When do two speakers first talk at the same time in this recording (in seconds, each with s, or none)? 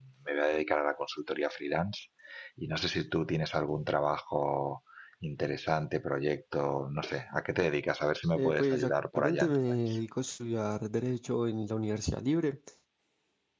8.3 s